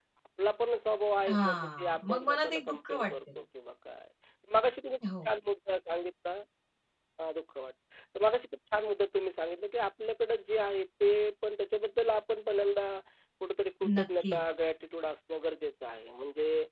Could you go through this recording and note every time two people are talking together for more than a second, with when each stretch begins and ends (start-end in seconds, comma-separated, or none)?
1.3-3.1